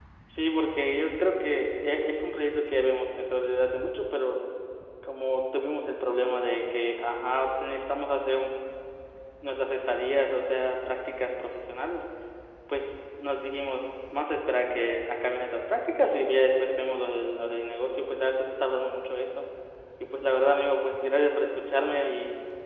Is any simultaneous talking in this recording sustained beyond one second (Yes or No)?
No